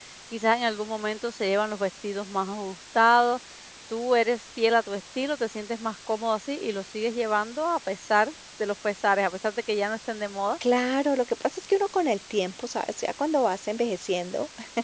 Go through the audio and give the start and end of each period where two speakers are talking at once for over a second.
none

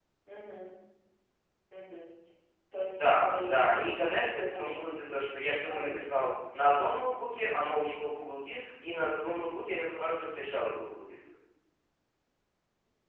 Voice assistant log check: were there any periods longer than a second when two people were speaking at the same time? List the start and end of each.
2.9-4.8

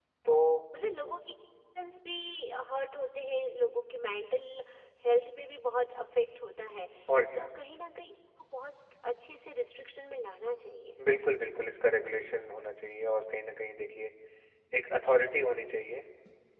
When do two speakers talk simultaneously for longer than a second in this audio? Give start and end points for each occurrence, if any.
none

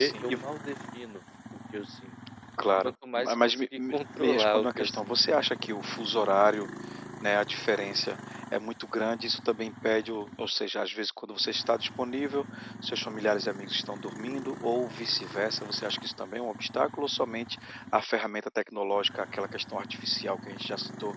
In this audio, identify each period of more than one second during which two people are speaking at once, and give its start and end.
2.8-5.4

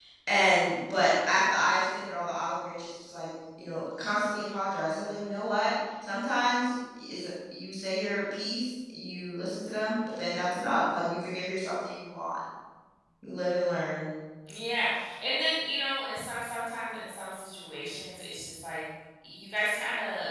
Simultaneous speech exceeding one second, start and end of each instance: none

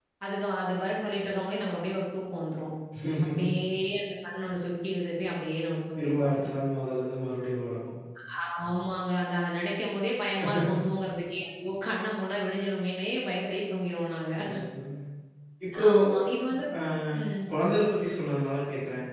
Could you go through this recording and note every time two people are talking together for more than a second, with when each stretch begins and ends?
none

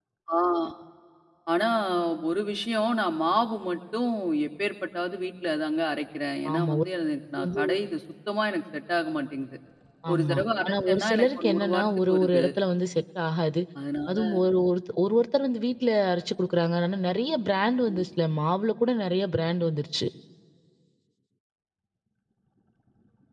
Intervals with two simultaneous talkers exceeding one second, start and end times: 10.1-12.4

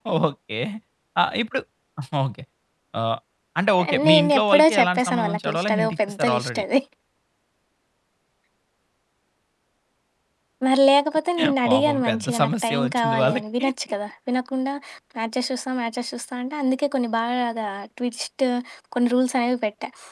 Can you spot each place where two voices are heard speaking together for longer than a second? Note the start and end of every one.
4.0-6.6, 11.7-13.7

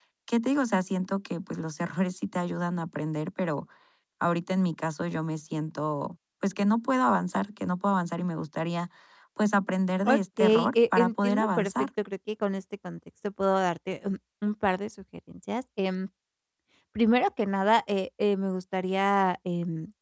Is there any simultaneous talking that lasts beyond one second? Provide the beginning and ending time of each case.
10.1-11.9

